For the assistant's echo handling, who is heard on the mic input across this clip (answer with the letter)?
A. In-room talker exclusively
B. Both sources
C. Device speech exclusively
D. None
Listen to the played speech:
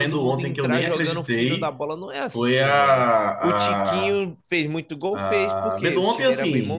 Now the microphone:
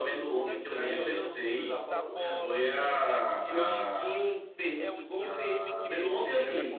B